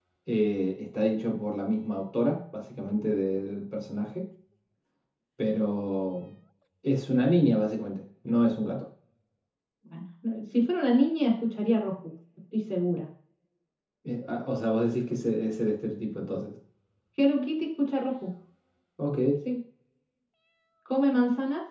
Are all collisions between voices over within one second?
Yes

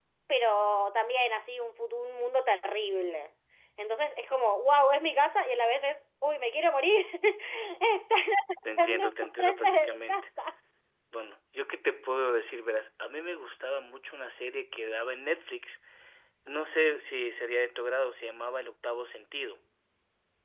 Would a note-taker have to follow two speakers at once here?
Yes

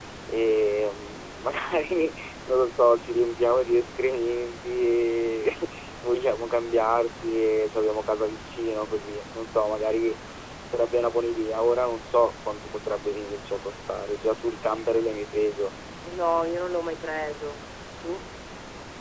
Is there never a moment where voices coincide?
Yes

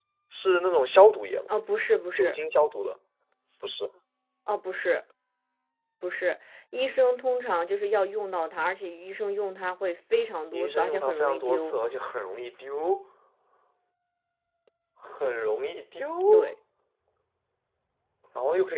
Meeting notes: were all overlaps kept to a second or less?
No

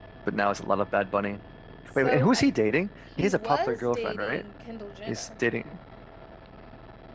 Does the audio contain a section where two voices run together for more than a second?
Yes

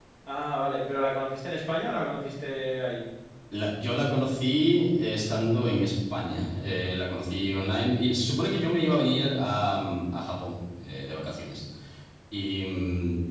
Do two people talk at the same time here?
No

